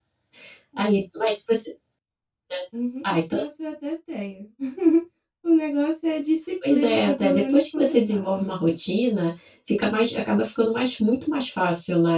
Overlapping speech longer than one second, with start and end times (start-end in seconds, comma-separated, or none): 6.7-8.3